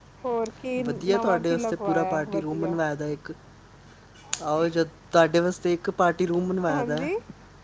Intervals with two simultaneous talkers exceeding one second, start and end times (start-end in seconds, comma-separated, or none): 0.9-2.8